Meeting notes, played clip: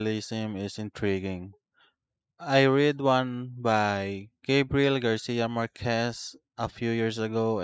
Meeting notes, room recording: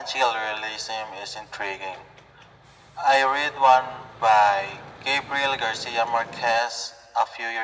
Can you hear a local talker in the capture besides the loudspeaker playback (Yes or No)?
No